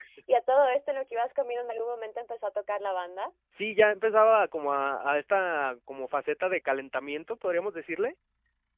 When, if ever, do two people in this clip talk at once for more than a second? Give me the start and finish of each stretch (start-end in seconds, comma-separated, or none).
none